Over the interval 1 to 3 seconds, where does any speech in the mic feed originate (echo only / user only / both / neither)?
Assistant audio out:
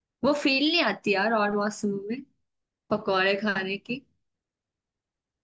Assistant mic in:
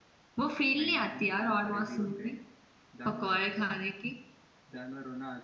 both